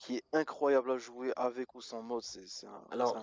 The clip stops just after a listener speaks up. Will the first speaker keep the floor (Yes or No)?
No